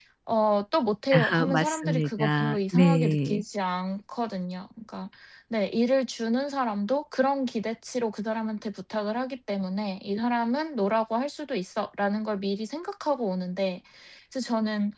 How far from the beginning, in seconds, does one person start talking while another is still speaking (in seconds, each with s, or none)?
1.1 s